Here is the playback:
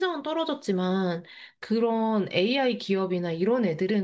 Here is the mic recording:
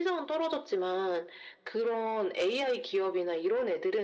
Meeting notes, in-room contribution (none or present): none